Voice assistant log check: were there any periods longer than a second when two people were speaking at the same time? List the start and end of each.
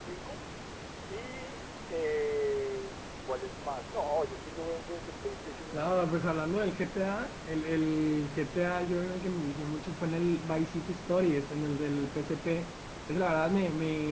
none

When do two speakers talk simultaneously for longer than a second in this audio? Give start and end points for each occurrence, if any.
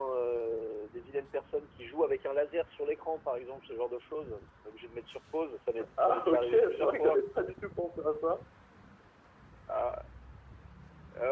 6.0-7.2

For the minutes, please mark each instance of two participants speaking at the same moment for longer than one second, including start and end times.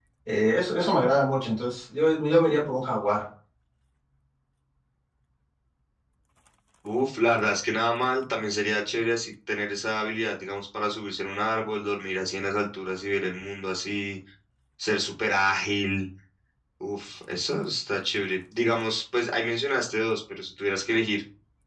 none

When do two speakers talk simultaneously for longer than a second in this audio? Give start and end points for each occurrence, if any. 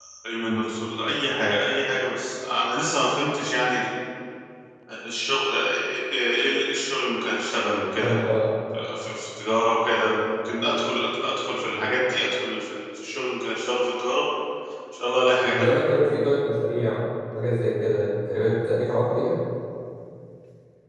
none

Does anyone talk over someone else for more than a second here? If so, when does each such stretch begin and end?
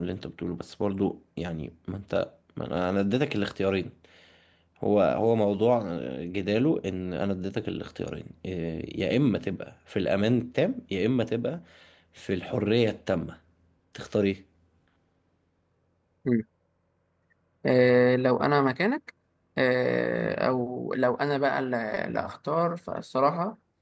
none

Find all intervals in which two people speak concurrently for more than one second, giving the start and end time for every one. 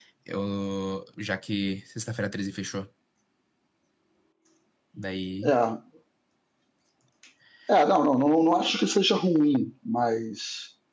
none

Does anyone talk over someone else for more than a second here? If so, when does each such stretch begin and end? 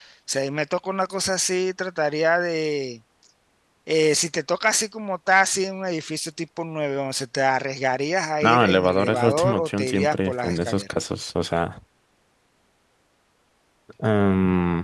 8.4-10.8

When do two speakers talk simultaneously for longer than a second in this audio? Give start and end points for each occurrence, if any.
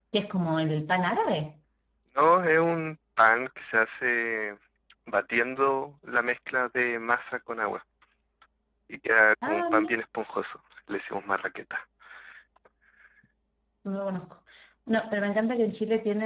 none

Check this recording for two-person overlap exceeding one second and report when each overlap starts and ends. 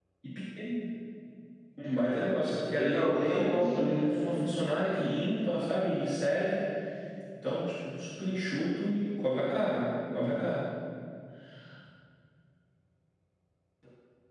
2.8-4.1

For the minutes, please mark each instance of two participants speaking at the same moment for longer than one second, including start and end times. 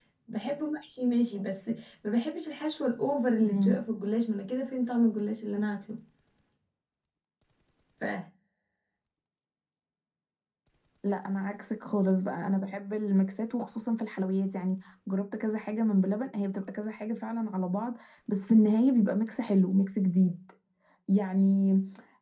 none

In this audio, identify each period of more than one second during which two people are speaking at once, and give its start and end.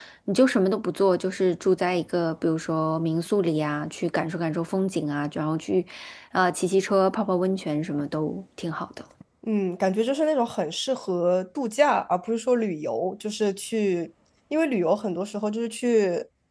none

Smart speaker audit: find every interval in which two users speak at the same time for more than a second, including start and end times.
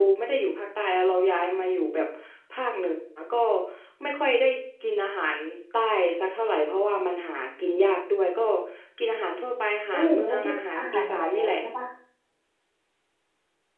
9.9-11.6

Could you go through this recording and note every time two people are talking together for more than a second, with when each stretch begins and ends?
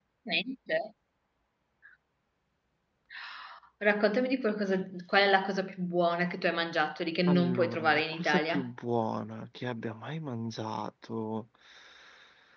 7.3-8.7

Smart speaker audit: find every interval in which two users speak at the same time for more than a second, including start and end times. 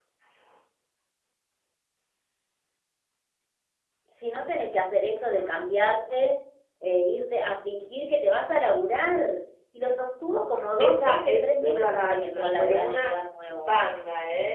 10.8-13.0

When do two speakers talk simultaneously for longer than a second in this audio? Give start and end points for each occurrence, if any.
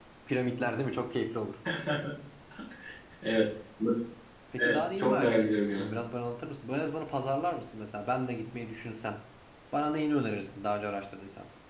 4.6-5.9

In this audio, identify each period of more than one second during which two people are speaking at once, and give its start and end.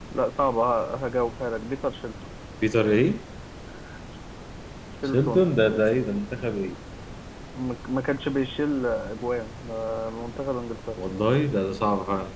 none

